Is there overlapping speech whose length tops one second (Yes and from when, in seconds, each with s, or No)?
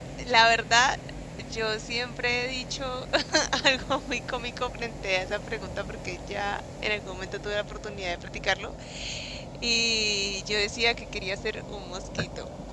No